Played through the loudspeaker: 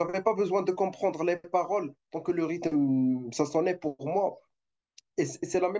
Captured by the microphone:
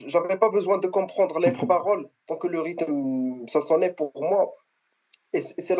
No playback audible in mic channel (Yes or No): No